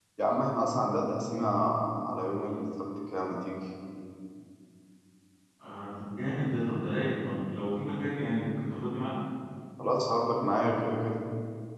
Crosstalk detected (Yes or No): No